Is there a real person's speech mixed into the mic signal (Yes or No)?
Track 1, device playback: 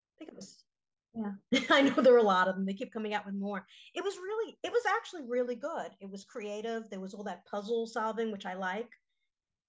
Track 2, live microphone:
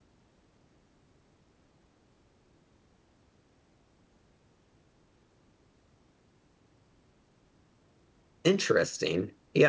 Yes